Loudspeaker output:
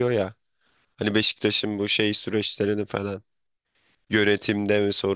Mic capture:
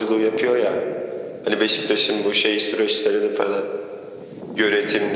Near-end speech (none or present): none